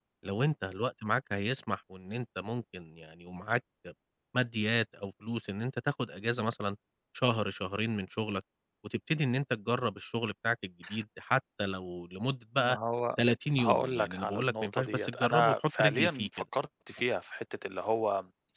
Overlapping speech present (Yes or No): Yes